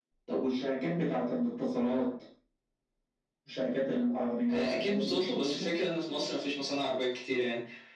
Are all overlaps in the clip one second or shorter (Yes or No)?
No